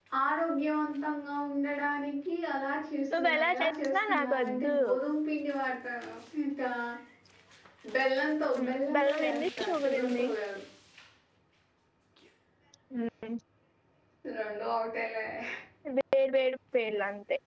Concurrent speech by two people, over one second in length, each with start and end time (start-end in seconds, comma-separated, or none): 3.1-4.8, 8.6-10.2